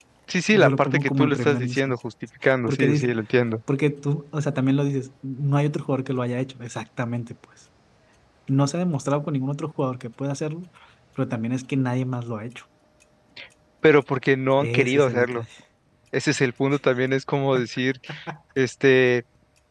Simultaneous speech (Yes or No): Yes